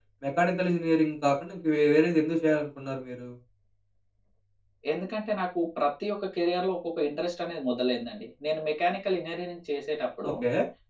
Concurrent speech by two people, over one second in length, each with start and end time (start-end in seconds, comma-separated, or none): none